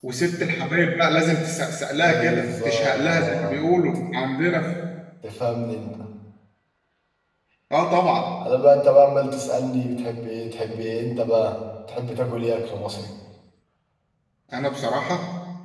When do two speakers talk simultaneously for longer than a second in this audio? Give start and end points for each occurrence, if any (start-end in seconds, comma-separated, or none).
1.9-3.6